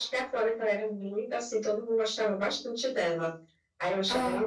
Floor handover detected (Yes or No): No